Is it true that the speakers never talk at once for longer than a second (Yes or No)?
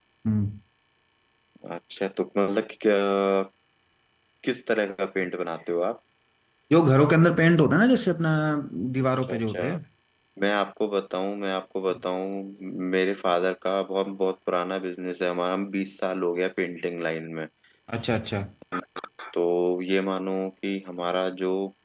Yes